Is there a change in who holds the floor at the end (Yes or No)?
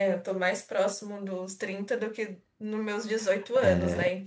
Yes